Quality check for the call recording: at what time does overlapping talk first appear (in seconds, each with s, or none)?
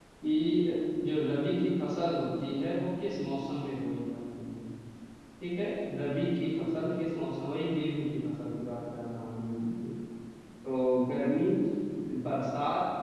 none